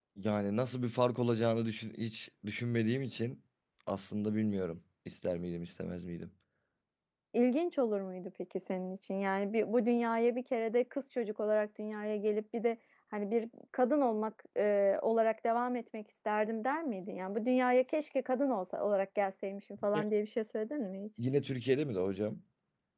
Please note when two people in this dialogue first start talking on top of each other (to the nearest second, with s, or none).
none